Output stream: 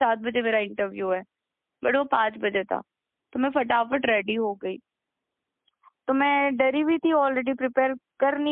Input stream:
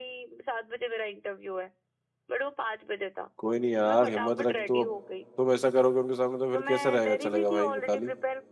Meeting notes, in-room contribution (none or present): present